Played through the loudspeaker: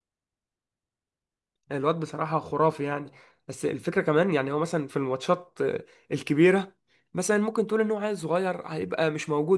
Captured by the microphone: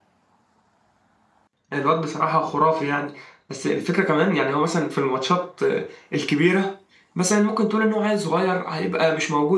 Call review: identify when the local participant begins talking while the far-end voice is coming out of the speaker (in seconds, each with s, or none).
none